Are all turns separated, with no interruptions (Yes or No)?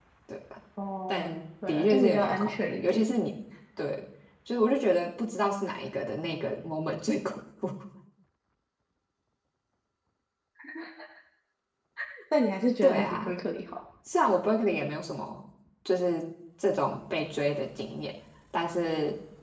No